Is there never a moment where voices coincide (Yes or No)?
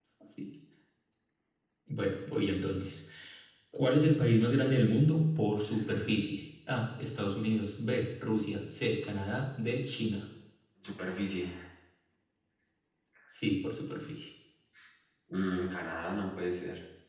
Yes